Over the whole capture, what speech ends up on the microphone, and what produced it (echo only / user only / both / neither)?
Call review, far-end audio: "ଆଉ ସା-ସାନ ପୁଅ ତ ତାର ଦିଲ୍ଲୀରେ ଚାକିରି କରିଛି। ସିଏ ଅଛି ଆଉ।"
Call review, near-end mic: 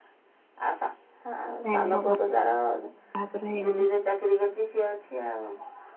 both